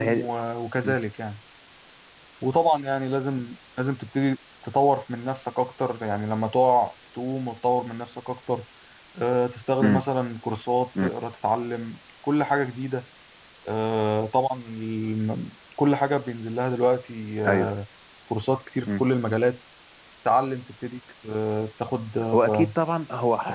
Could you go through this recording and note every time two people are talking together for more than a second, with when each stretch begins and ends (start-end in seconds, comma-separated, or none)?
none